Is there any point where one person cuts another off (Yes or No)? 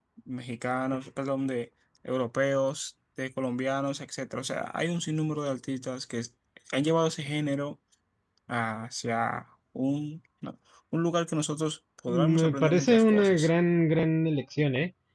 Yes